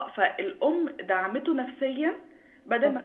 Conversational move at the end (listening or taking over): listening